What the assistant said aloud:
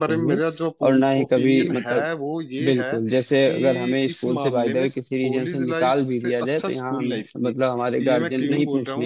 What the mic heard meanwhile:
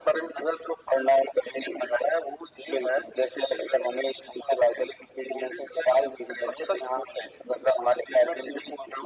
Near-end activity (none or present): none